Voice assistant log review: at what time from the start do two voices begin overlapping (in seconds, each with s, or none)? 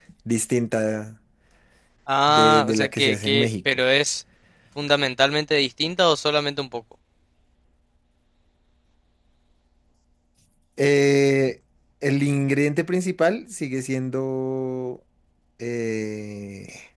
2.3 s